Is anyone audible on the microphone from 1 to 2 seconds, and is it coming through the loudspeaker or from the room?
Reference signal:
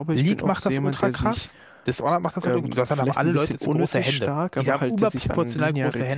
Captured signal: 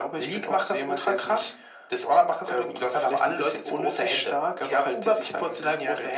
echo only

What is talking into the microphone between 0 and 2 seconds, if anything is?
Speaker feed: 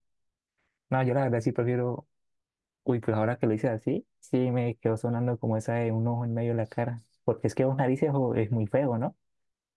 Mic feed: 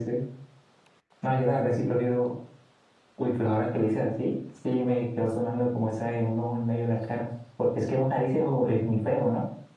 echo only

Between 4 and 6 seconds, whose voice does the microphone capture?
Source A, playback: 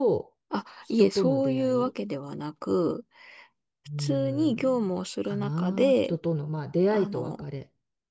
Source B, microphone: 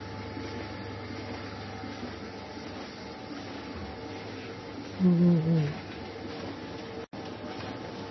user only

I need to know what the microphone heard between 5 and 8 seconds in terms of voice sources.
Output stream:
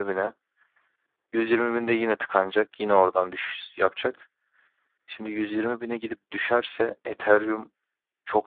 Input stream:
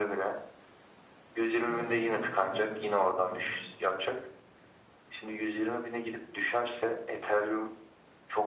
echo only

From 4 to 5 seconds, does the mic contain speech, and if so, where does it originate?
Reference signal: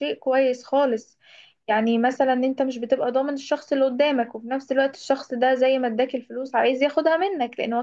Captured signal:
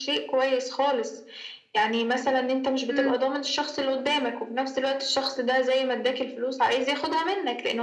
echo only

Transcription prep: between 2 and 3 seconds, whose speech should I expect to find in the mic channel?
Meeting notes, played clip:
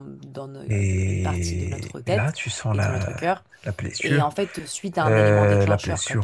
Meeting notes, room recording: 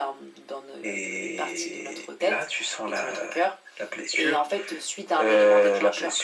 echo only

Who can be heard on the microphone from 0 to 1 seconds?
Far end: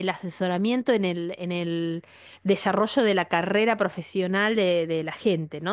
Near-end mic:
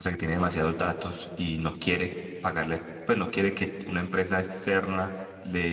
user only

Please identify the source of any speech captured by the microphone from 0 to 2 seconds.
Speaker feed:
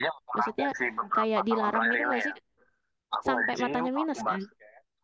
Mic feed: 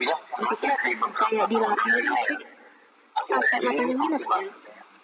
echo only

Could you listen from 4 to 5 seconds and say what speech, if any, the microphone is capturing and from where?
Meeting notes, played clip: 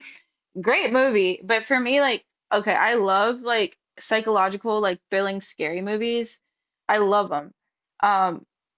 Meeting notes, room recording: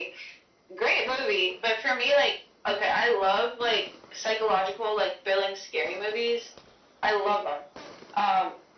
echo only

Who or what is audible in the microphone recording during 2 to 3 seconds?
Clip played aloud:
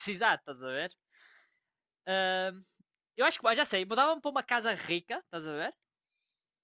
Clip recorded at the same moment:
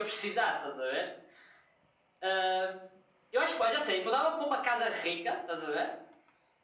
echo only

